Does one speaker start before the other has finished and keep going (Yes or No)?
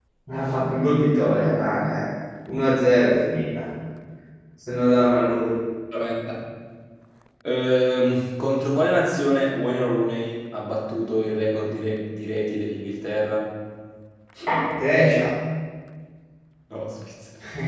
No